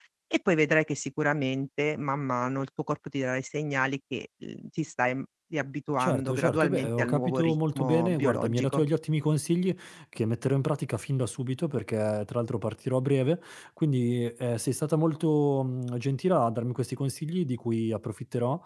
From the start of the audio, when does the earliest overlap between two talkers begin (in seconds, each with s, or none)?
6.0 s